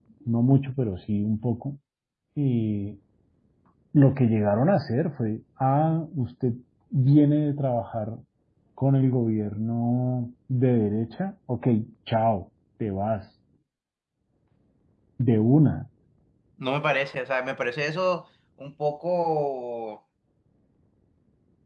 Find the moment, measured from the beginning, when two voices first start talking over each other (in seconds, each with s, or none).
none